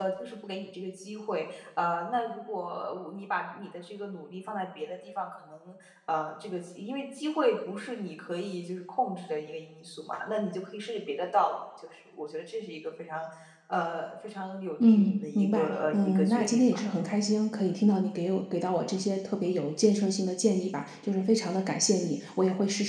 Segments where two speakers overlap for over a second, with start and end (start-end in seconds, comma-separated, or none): 14.8-17.1